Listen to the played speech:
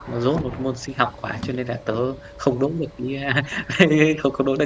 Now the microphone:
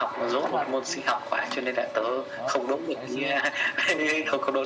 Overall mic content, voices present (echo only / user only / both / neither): both